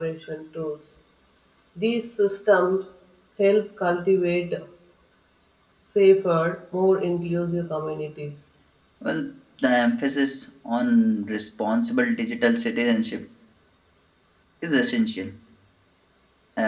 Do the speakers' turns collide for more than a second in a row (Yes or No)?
No